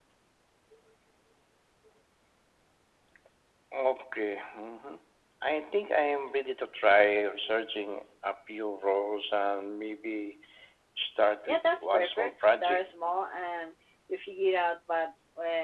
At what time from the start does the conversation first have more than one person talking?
11.5 s

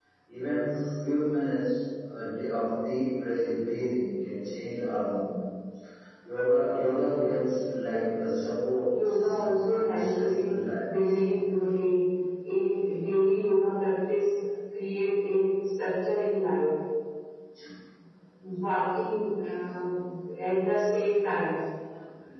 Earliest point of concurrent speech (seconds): 9.0 s

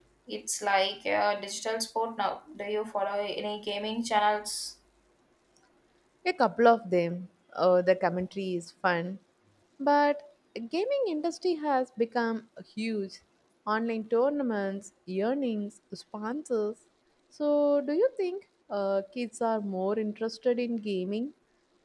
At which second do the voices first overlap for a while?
none

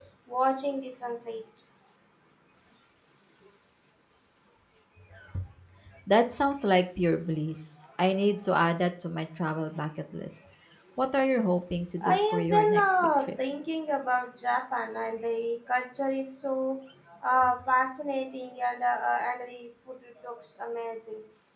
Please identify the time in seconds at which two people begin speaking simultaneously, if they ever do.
12.0 s

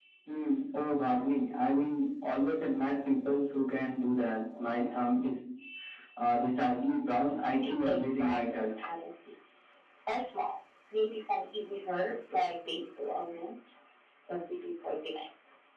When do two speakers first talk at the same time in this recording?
7.6 s

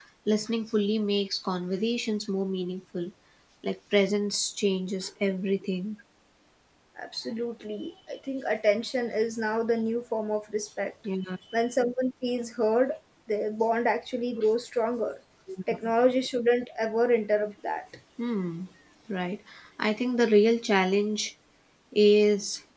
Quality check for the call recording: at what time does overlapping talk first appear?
none

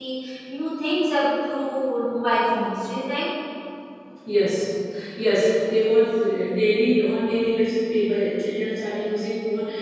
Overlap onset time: none

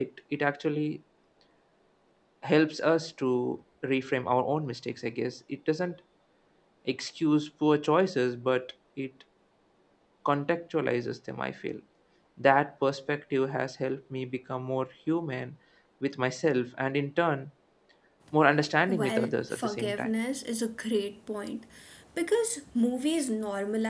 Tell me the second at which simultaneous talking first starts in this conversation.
18.9 s

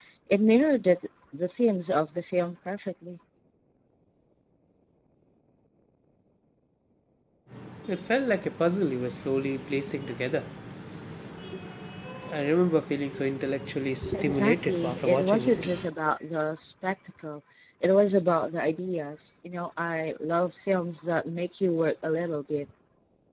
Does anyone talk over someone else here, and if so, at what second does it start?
14.1 s

